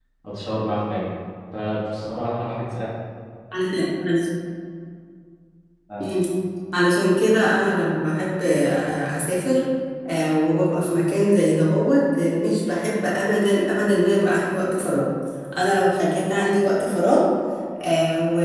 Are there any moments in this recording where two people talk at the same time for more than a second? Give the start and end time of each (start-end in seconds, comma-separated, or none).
none